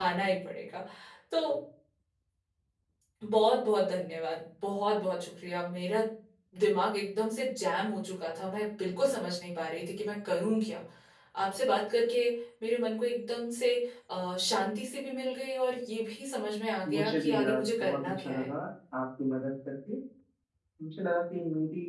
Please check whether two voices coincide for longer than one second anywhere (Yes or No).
Yes